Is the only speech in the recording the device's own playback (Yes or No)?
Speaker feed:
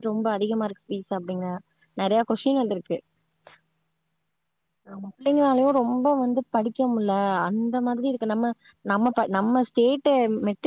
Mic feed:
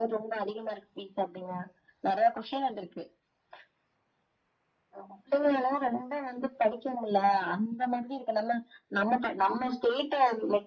Yes